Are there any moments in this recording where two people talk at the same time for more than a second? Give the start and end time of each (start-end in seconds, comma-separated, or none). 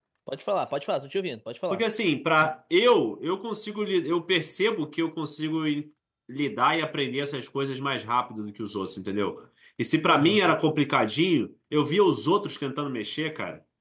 none